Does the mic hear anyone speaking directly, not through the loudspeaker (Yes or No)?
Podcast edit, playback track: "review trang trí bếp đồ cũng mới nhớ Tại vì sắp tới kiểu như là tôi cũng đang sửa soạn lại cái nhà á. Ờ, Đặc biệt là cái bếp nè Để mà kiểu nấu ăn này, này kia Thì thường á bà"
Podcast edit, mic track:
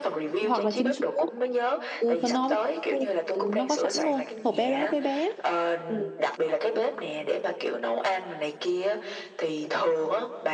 Yes